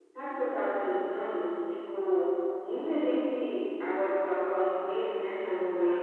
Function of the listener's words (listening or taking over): listening